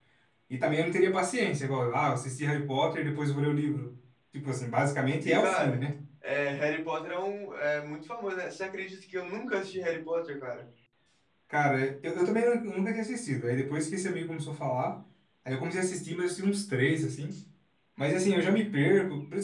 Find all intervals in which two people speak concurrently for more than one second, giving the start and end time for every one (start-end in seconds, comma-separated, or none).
none